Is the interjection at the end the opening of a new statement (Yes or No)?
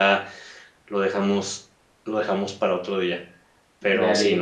No